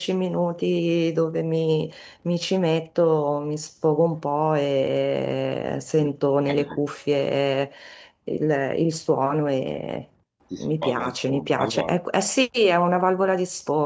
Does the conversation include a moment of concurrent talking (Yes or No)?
Yes